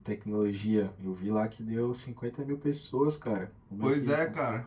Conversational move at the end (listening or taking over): taking over